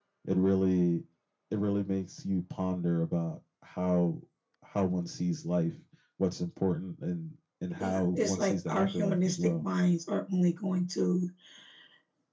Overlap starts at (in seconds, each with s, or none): 7.7 s